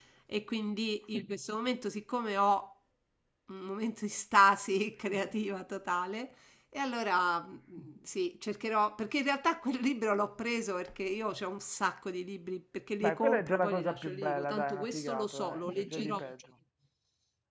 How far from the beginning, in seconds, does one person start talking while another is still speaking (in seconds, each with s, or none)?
13.0 s